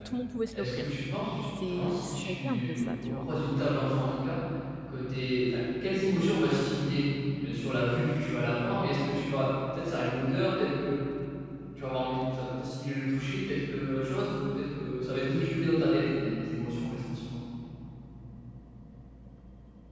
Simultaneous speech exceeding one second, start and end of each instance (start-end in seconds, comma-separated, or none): 1.7-3.2